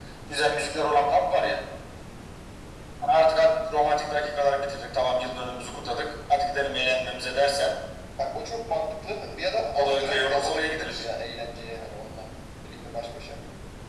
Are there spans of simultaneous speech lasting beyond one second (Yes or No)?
Yes